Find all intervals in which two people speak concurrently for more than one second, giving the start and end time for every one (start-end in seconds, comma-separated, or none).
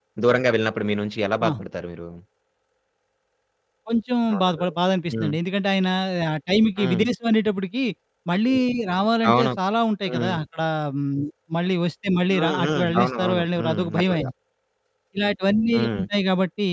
12.3-14.3